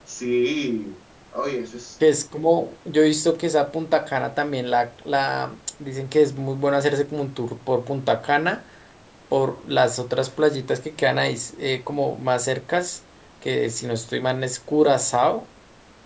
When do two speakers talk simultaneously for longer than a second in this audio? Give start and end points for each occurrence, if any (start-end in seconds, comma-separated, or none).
none